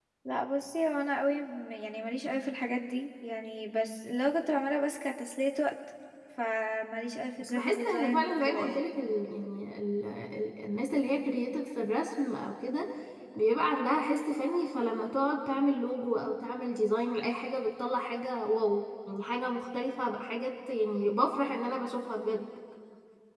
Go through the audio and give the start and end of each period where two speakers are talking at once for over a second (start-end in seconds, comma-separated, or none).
7.4-9.0